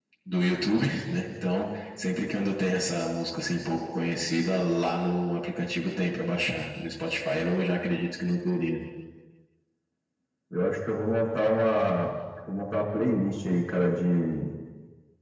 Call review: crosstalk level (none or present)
none